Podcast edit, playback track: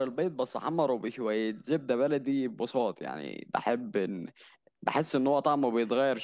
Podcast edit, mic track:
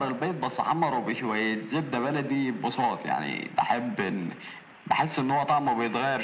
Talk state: echo only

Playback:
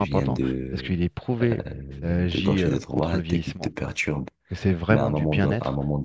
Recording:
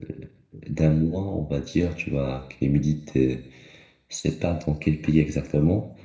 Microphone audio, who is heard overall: user only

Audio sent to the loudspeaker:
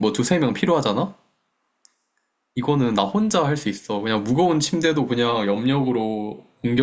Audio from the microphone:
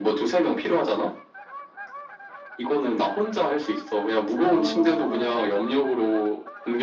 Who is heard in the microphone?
both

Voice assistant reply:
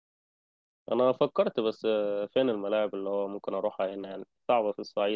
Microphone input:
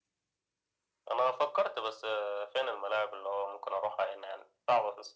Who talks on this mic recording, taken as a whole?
echo only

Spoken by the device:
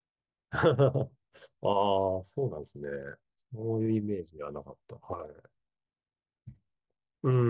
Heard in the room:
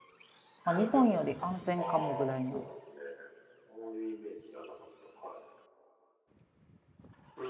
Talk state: both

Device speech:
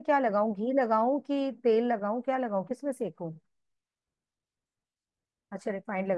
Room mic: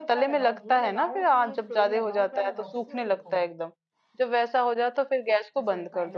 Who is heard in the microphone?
both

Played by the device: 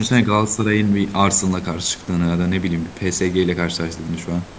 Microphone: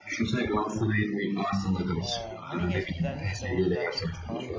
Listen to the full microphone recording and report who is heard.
both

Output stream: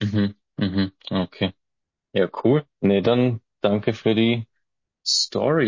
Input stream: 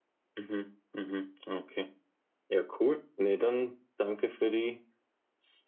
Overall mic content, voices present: echo only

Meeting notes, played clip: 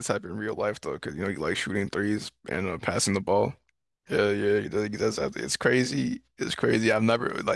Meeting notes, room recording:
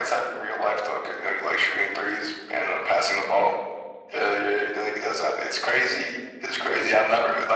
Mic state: echo only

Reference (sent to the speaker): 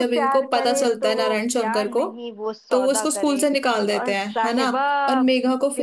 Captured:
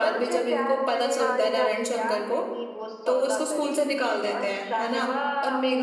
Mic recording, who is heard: both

